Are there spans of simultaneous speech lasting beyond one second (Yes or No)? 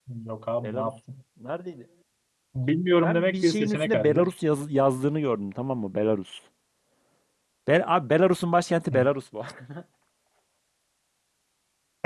Yes